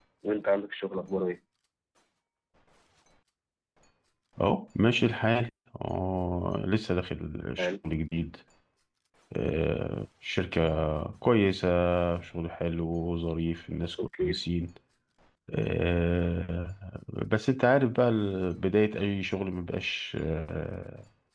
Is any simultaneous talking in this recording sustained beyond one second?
No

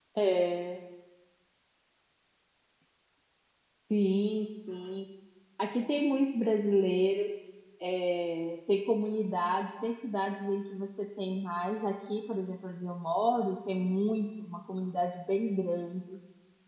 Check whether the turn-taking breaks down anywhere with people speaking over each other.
No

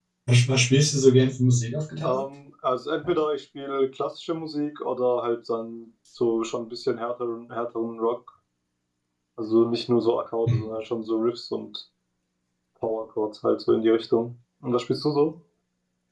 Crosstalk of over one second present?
No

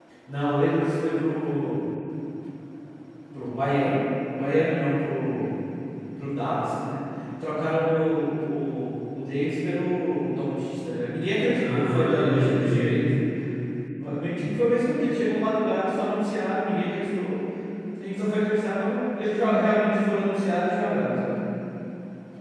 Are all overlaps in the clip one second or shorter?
No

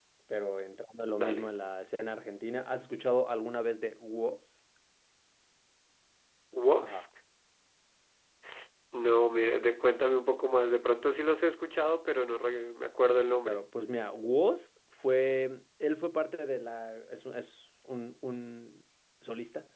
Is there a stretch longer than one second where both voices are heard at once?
No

